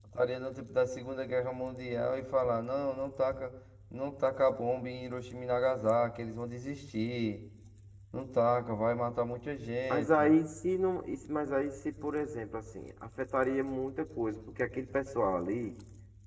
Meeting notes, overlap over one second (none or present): none